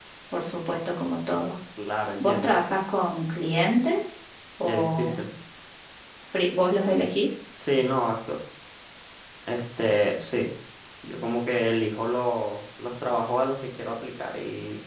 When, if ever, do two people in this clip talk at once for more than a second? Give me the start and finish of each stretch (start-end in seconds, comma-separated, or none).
none